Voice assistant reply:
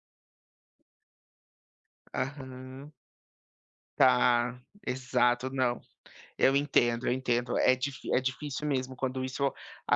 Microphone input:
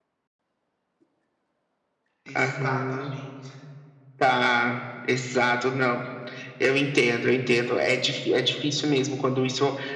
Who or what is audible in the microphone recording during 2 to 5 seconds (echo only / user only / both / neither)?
both